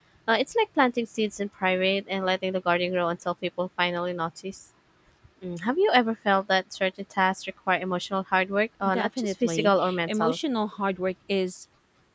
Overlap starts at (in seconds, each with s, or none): 8.8 s